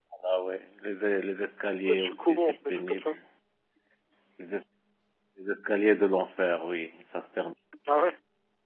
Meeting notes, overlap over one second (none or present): present